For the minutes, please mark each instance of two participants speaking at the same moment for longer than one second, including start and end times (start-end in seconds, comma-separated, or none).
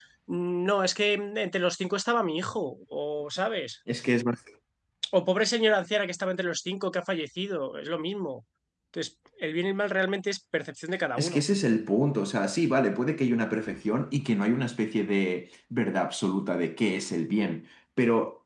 none